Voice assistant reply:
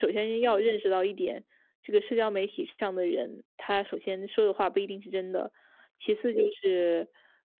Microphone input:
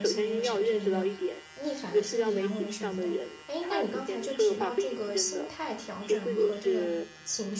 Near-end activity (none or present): present